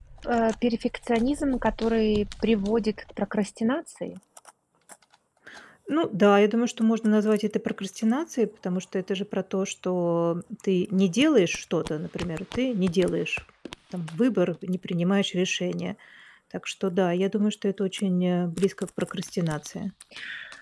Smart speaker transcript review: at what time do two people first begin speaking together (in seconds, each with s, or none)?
none